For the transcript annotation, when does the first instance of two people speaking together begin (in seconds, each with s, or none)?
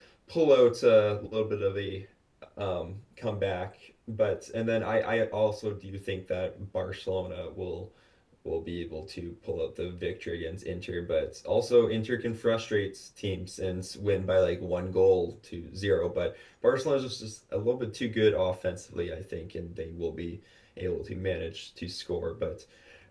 none